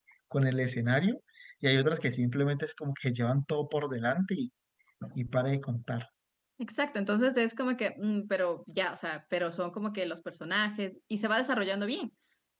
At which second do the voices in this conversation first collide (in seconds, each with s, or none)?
none